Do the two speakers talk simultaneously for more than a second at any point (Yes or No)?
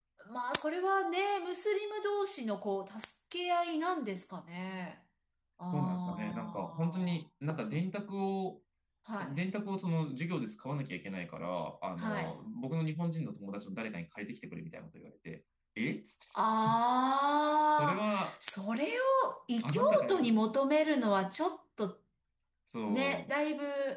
Yes